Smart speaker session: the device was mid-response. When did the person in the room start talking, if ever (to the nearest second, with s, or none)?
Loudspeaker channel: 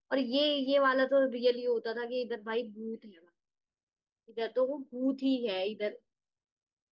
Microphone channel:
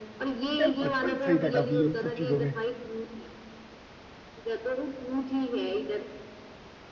1 s